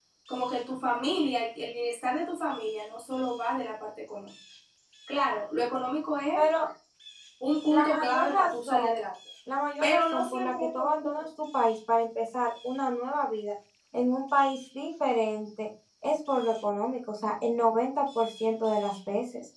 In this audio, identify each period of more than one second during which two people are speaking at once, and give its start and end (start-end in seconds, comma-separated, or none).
7.7-9.0, 9.8-11.2